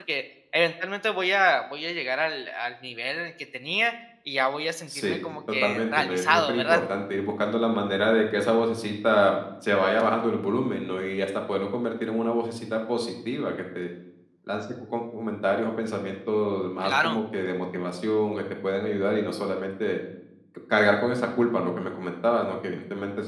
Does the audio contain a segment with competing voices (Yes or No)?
Yes